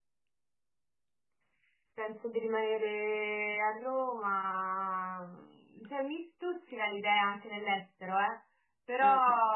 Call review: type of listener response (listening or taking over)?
listening